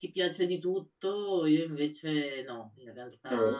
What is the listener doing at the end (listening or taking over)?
listening